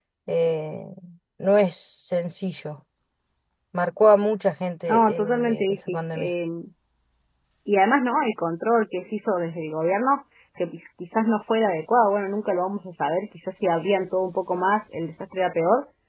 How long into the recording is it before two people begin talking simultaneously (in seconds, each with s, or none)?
4.9 s